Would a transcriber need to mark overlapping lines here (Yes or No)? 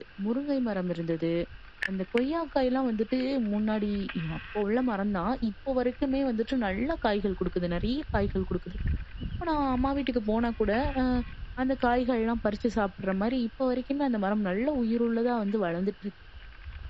No